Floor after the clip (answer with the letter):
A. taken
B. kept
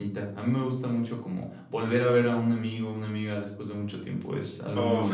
A